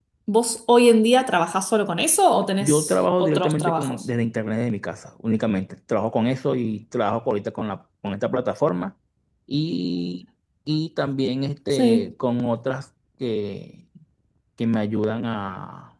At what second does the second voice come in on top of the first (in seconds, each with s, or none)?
2.6 s